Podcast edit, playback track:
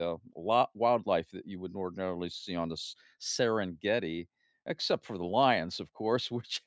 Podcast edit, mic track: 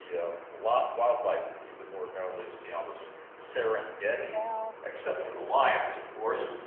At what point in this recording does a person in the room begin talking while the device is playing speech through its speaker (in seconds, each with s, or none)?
4.3 s